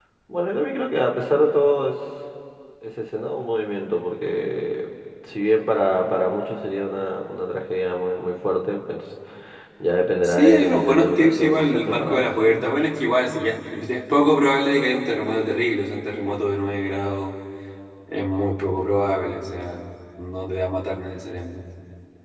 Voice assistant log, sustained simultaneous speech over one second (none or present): present